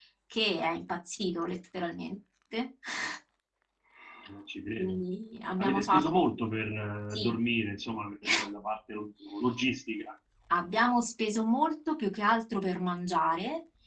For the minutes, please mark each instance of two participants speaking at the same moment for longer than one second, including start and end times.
none

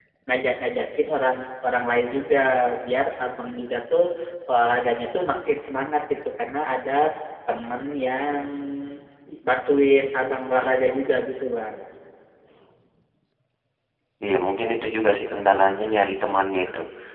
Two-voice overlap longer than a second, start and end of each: none

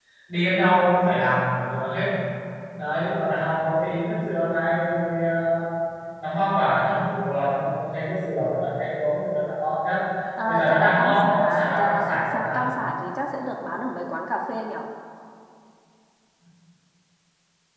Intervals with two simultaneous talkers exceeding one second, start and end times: 10.4-12.6

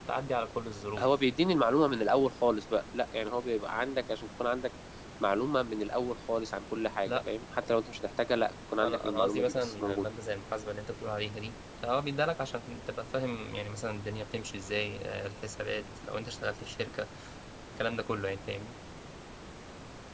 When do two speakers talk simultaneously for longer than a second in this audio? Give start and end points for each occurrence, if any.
8.8-10.1

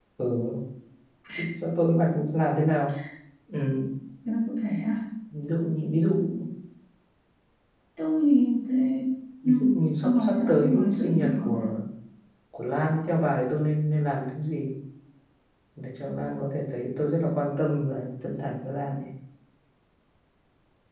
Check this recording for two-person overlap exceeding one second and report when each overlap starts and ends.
10.0-11.7

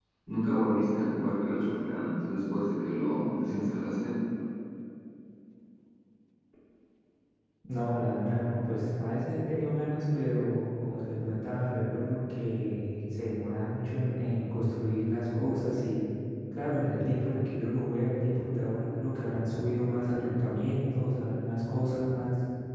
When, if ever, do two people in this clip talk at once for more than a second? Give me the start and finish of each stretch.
none

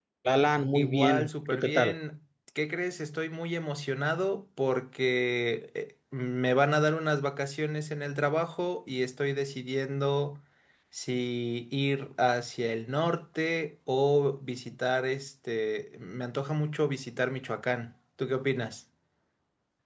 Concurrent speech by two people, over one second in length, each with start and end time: 0.7-2.0

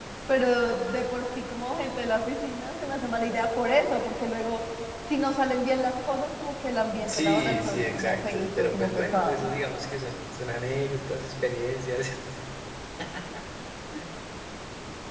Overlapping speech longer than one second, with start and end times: 7.0-9.5

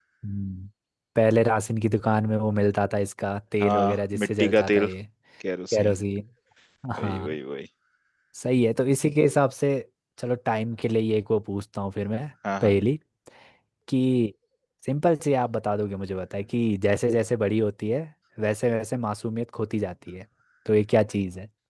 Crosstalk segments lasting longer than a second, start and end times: 3.6-4.9

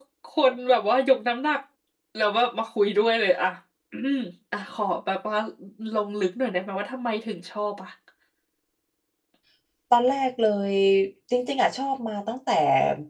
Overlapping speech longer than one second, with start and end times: none

